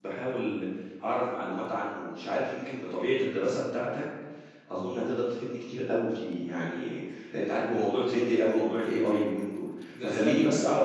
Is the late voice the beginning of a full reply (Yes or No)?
No